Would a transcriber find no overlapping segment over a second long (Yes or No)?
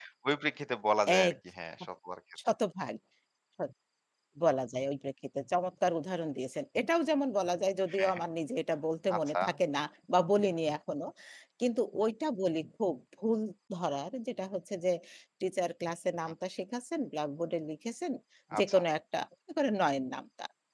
Yes